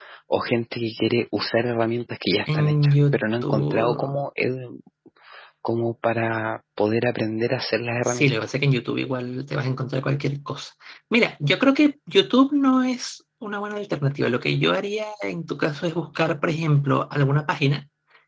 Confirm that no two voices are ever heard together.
No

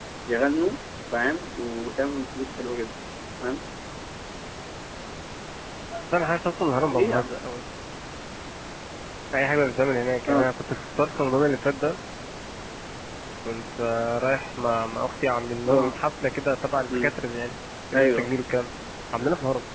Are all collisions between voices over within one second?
Yes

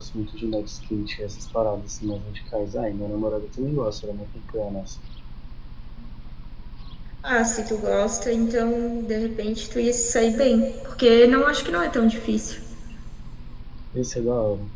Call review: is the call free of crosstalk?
Yes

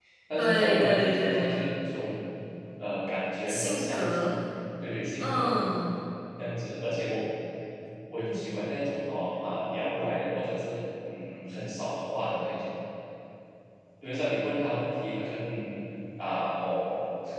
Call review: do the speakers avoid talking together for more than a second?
No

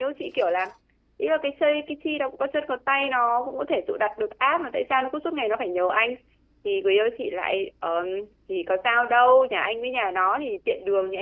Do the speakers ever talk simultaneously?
No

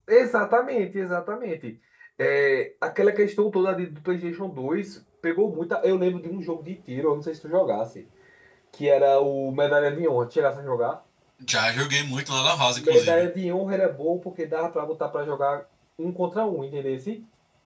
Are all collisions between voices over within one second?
Yes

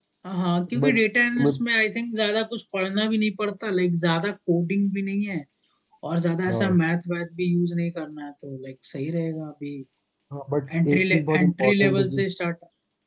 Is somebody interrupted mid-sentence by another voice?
Yes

